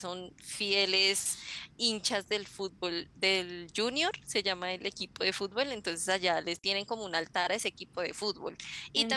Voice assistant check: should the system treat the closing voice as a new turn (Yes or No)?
No